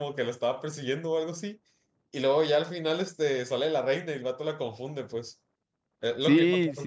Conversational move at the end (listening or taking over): taking over